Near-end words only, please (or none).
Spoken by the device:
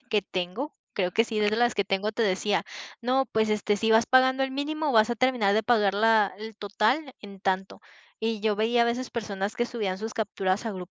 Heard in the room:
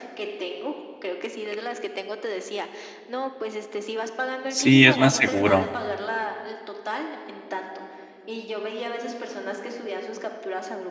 Sí, es más seguro.